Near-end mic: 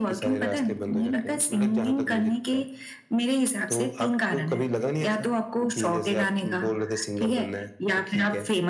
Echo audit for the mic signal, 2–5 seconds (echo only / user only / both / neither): echo only